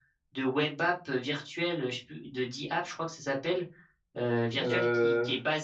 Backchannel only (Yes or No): Yes